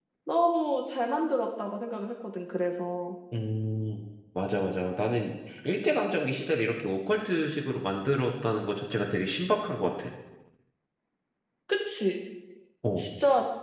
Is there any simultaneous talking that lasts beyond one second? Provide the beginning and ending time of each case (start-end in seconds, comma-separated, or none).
none